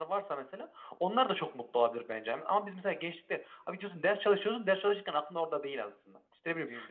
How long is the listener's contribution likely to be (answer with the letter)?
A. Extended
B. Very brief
B